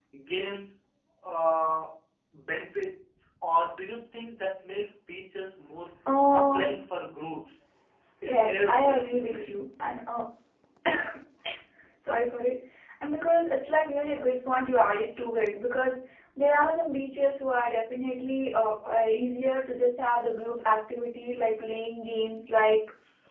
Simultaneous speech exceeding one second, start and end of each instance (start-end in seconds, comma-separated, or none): 8.2-9.6